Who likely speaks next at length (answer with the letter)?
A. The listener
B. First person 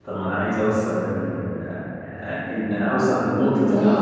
B